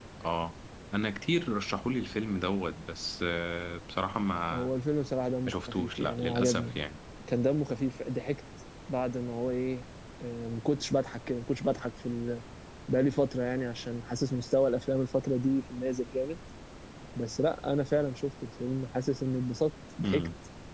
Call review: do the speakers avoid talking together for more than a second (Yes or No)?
No